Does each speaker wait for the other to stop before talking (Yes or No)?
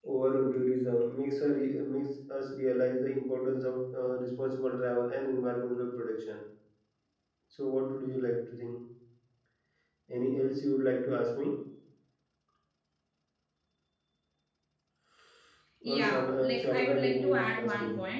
No